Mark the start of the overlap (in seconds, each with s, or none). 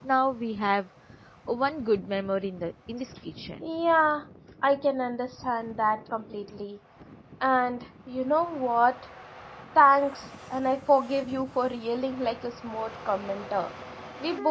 none